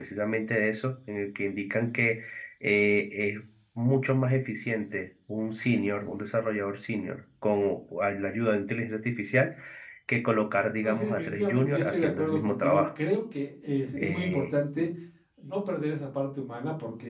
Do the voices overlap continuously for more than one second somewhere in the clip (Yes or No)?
Yes